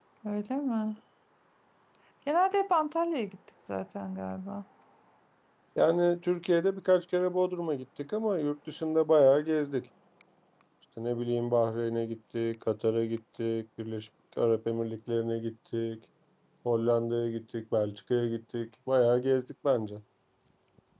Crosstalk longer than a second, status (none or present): none